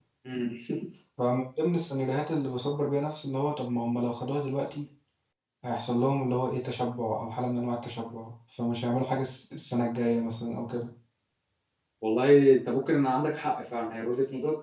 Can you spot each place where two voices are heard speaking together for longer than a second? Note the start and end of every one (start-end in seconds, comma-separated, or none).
none